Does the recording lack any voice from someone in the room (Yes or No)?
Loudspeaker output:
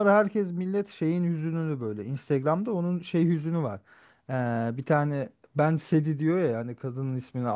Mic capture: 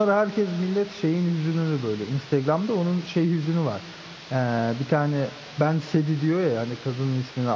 Yes